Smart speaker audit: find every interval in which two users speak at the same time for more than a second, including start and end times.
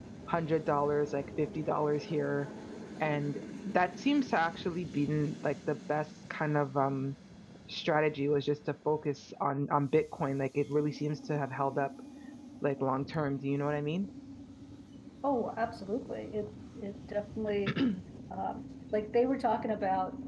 none

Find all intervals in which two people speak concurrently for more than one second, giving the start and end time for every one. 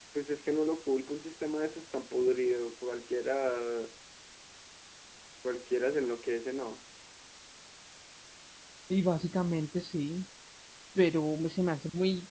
none

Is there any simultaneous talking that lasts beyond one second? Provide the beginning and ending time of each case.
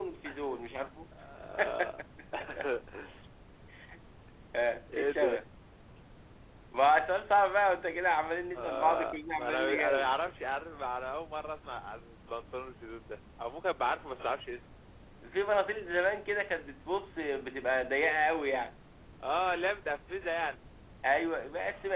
8.6-10.1

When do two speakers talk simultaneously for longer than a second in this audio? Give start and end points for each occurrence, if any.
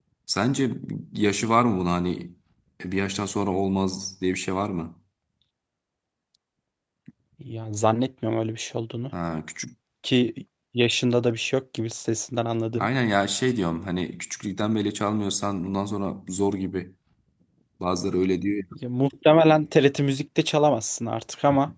none

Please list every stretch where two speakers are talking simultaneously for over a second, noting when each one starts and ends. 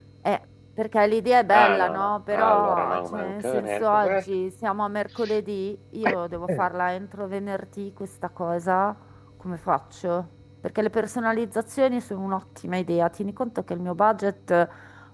1.5-4.2

